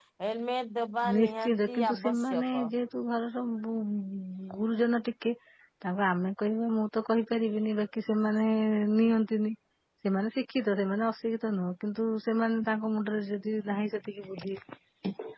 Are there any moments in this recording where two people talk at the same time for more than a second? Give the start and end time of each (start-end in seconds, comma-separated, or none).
1.1-2.7